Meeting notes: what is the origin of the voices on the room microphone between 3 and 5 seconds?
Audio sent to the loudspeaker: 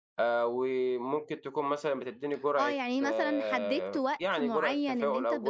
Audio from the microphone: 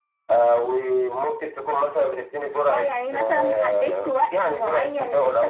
echo only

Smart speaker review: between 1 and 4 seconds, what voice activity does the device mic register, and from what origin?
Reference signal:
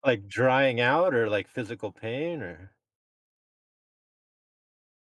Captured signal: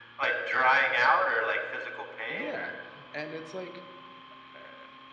both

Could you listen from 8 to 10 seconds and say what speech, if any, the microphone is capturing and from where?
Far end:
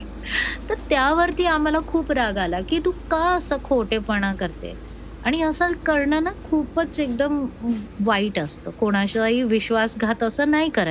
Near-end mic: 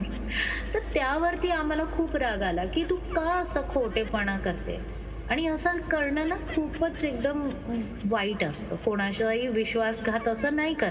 echo only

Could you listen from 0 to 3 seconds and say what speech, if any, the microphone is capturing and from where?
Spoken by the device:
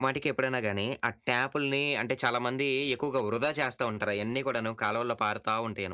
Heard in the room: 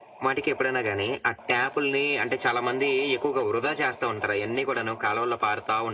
echo only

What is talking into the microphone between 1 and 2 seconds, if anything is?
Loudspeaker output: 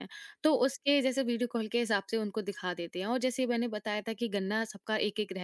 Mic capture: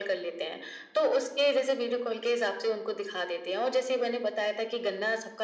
echo only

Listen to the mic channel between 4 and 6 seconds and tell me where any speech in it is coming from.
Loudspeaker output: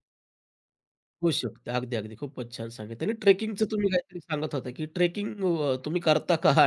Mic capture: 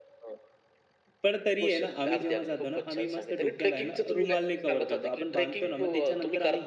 both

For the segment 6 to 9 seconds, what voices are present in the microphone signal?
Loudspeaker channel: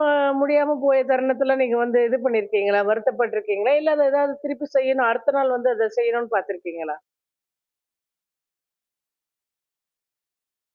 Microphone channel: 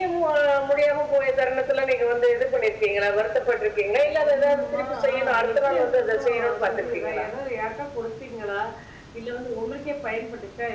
both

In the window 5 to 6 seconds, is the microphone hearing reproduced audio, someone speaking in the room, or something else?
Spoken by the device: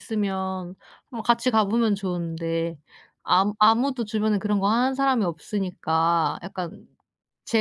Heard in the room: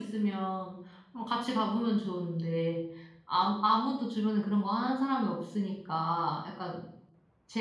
echo only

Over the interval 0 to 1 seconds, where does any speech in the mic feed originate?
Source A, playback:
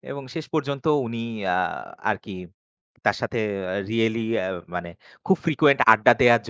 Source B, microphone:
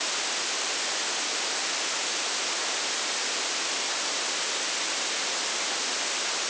neither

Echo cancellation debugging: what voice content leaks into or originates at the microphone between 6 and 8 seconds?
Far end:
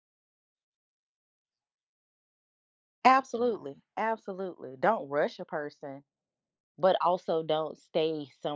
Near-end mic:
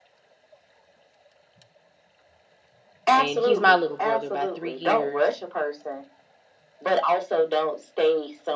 echo only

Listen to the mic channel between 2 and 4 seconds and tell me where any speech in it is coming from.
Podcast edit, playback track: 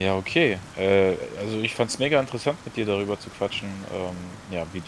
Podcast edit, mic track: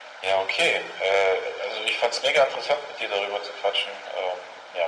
echo only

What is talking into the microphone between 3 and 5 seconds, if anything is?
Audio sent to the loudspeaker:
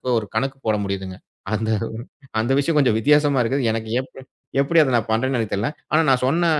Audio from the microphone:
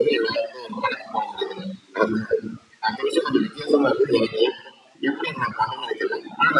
echo only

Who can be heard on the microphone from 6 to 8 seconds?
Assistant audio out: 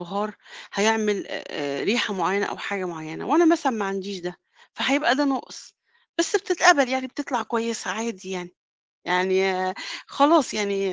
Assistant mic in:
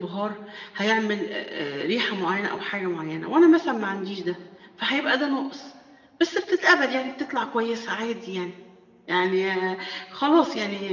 echo only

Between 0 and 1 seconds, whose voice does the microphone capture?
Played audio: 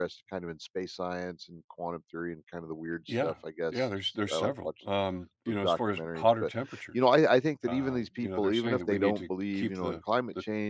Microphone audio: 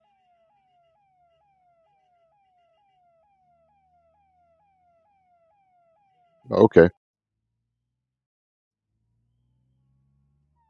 neither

